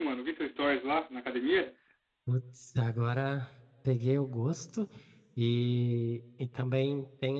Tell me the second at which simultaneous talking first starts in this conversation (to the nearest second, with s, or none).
none